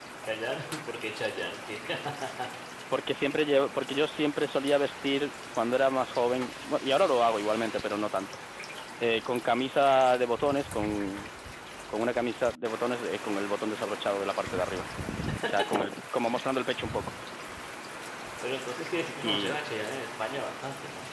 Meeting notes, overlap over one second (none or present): none